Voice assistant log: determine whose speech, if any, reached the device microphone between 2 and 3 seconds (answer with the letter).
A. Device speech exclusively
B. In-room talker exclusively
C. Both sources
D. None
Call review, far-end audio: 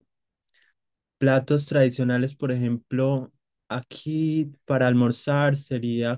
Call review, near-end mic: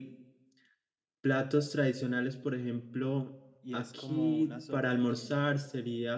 A